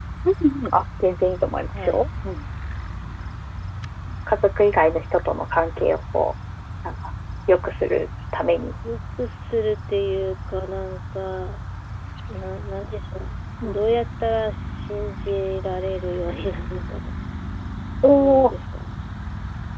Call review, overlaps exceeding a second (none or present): none